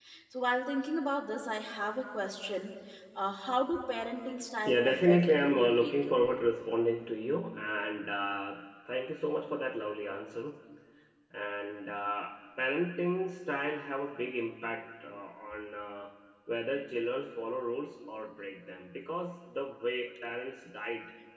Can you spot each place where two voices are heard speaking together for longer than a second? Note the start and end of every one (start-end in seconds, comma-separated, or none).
4.7-6.2